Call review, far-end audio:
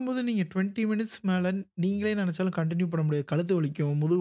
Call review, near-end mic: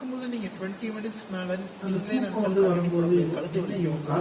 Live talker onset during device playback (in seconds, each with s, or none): 1.9 s